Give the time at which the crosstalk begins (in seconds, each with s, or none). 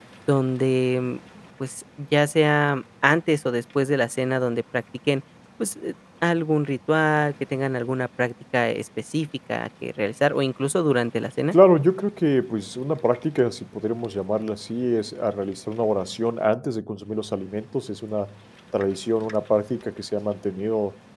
none